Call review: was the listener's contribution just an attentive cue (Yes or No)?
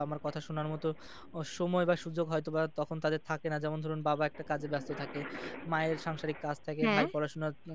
Yes